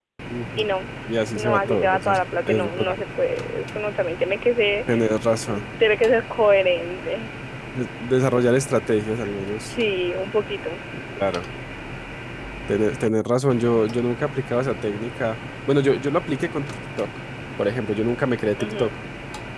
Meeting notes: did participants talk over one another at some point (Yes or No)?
Yes